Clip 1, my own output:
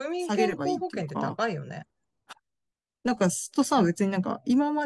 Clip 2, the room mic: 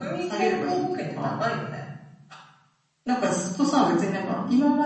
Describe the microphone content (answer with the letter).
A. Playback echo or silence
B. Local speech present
A